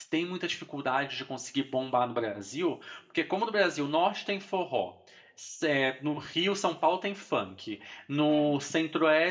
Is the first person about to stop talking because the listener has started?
No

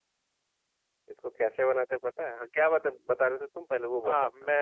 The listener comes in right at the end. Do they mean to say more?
Yes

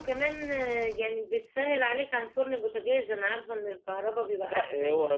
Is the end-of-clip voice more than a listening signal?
Yes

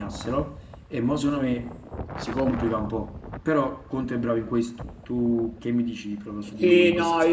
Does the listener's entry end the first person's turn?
Yes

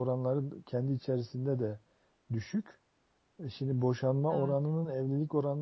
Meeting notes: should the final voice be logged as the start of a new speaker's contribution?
No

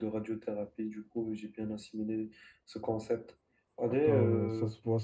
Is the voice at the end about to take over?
Yes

